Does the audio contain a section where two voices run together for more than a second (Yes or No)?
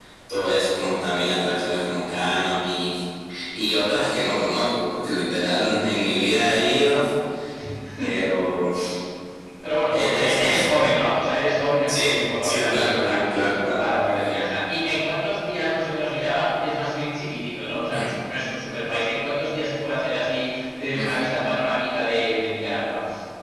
Yes